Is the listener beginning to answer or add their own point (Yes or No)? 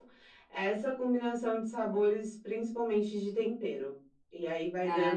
Yes